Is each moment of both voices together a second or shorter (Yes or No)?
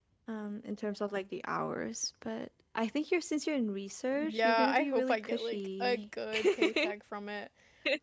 No